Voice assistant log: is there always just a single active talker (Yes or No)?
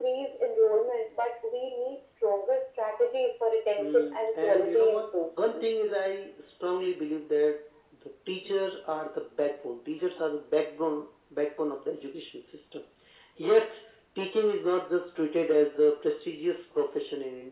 No